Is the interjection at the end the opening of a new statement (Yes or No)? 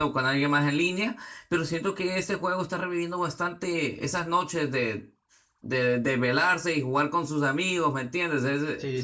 Yes